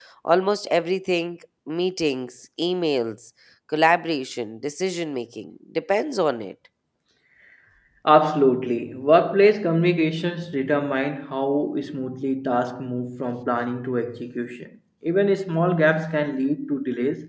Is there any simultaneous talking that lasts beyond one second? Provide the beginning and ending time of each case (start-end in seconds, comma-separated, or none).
none